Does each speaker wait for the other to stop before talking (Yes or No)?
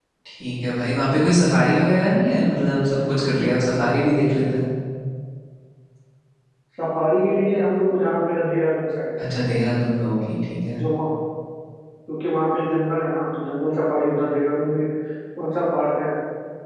Yes